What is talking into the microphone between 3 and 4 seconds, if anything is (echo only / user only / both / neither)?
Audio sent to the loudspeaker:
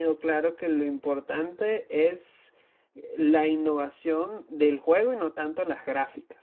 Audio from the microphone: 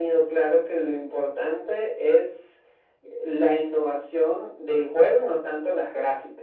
echo only